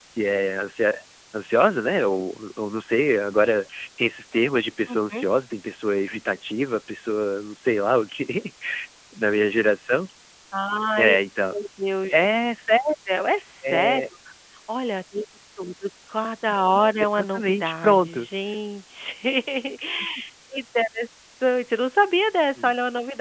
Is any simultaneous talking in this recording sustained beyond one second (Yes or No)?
Yes